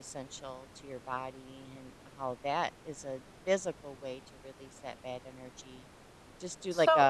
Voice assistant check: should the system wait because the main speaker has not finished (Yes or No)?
No